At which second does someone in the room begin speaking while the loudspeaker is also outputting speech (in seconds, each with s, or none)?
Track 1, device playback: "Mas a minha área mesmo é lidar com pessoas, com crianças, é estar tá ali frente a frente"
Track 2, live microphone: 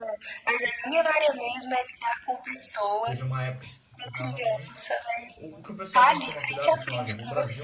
3.0 s